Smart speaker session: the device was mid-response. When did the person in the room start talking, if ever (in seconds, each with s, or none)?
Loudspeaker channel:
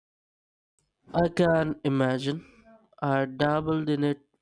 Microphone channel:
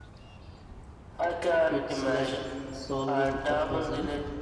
1.7 s